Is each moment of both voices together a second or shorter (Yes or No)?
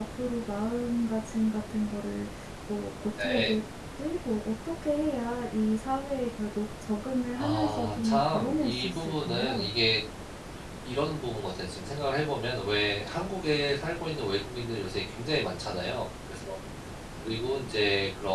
No